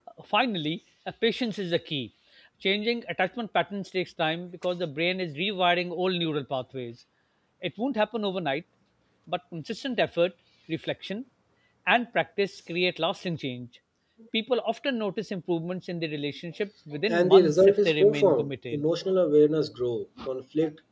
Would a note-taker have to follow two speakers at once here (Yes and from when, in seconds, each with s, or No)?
Yes, from 17.1 s